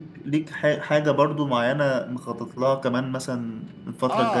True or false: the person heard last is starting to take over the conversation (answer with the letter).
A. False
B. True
B